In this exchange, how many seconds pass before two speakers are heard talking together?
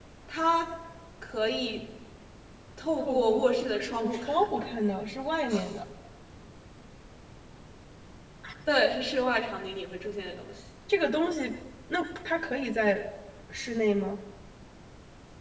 3 s

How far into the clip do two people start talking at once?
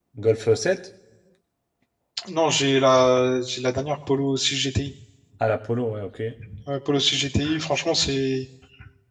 none

